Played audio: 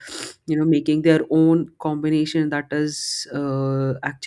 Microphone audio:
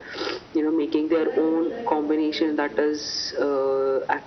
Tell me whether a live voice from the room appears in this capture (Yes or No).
Yes